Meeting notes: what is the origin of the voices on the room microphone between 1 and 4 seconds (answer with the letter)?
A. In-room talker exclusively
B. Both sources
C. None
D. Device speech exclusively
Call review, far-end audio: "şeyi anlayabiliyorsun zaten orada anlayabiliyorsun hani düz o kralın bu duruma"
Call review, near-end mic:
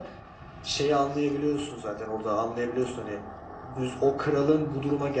D